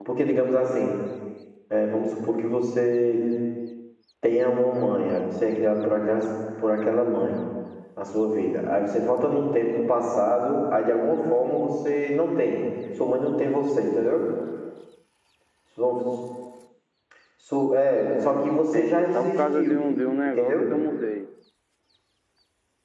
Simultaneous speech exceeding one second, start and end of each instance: 18.2-19.8

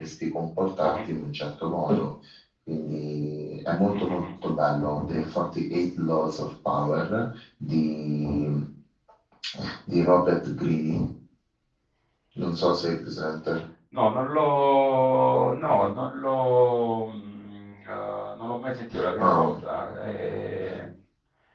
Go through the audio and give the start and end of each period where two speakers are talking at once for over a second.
none

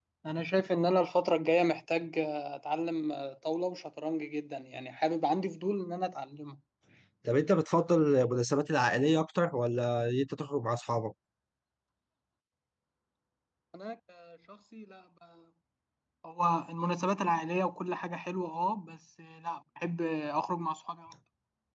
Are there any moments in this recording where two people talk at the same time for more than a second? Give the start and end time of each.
none

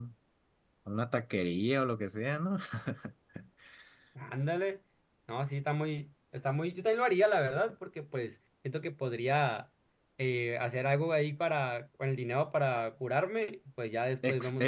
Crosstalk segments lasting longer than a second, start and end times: none

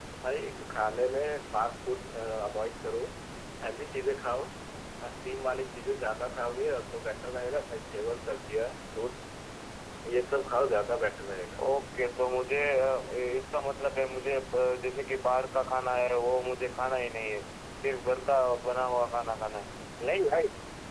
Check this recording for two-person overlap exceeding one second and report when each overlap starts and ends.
none

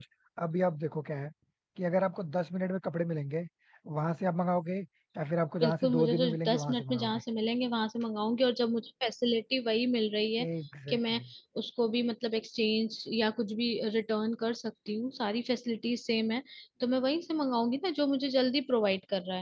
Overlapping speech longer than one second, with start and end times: 5.6-7.2

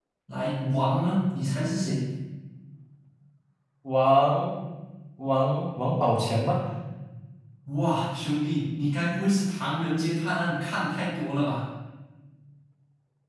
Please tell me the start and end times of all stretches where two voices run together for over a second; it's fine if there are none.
none

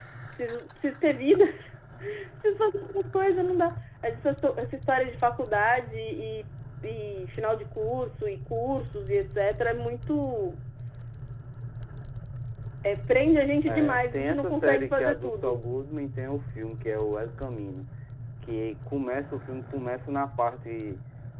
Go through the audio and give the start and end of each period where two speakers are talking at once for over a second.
13.7-15.6

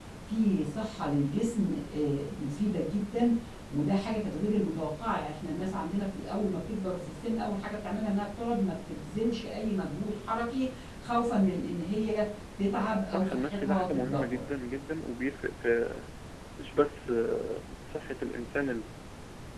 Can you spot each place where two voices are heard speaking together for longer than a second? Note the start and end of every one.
13.1-14.4

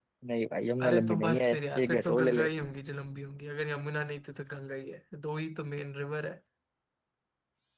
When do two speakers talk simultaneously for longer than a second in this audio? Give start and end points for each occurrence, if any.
0.8-2.5

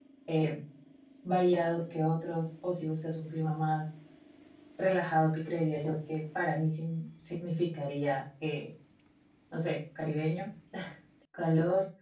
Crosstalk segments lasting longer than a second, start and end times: none

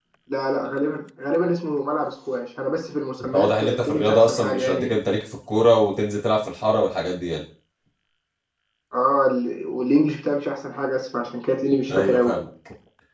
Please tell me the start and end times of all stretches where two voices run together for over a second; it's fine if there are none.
3.3-4.9

